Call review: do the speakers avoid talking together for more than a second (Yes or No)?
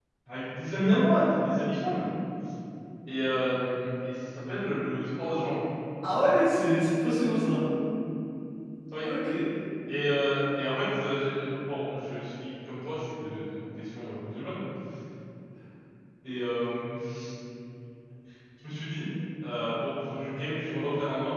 Yes